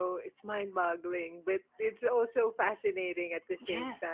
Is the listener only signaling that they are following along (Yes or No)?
No